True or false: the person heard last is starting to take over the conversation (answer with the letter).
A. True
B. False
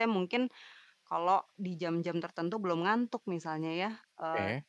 B